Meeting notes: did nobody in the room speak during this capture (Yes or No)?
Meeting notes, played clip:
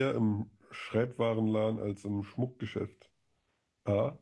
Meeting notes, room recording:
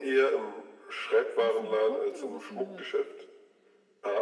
No